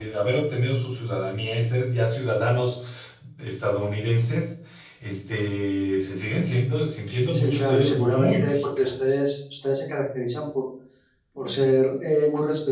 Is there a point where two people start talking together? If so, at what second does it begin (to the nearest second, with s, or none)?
7 s